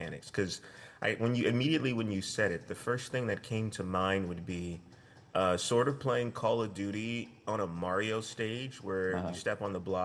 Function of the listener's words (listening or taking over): listening